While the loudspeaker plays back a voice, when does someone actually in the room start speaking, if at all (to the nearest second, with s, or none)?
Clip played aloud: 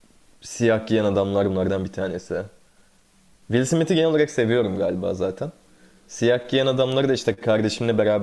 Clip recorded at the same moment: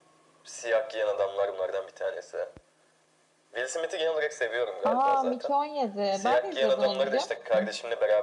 5 s